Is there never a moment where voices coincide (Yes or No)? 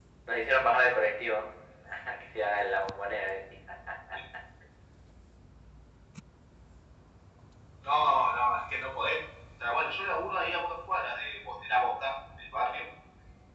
Yes